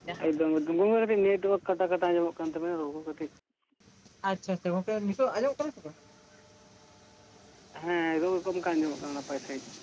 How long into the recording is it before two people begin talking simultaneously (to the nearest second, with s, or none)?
none